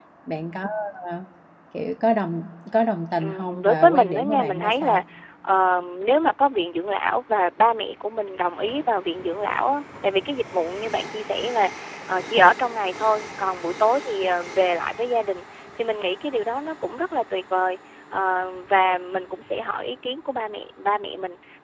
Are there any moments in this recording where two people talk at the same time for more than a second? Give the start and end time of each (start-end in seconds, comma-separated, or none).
3.2-5.0